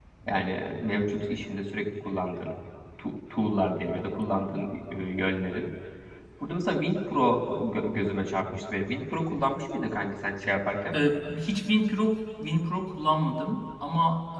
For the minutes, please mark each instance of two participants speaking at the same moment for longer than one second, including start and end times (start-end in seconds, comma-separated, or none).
none